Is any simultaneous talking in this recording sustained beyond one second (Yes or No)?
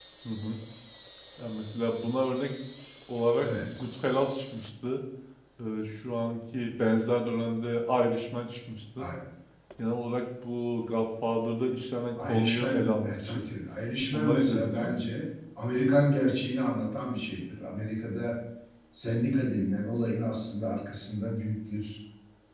Yes